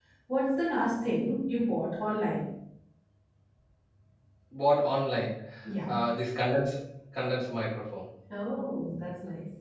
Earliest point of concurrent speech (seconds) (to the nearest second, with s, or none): none